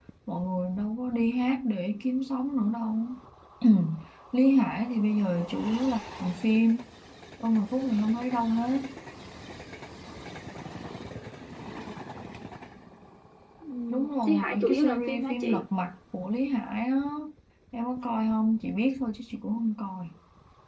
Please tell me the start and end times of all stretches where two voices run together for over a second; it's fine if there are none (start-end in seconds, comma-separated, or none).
13.9-15.6